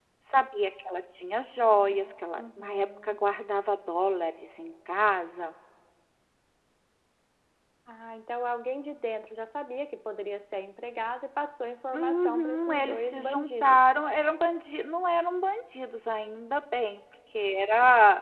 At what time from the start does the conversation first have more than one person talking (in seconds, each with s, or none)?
1.6 s